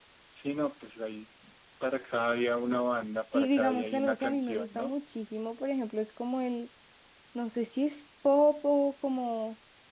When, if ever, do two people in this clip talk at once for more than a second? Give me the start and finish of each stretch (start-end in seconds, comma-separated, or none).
3.3-4.9